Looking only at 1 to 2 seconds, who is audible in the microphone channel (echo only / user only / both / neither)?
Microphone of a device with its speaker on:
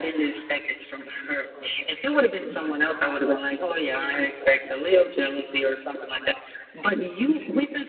echo only